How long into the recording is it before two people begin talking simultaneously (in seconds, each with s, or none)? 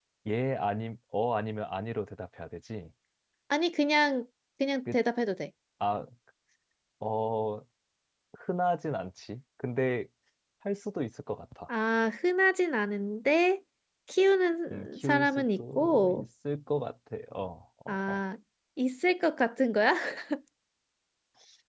14.7 s